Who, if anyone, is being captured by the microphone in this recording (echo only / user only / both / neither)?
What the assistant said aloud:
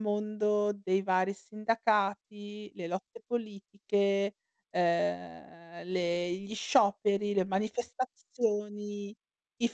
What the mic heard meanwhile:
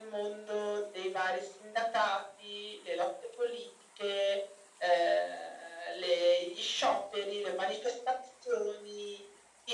echo only